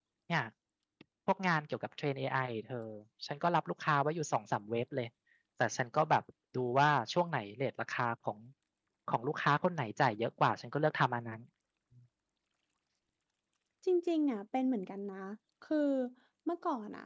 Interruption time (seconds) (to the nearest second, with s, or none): none